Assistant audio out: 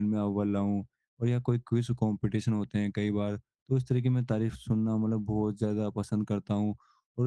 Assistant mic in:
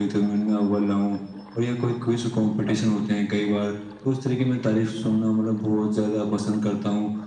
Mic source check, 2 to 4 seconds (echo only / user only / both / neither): echo only